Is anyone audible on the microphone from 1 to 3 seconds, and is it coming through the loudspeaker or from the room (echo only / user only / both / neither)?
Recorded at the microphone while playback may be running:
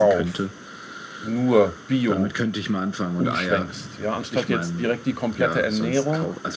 both